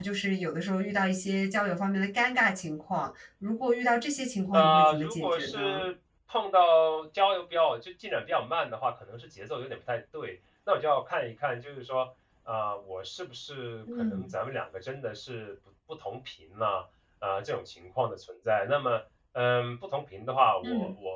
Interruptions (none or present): present